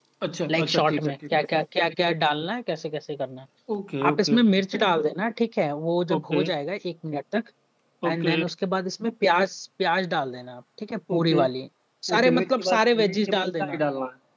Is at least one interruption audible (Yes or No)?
Yes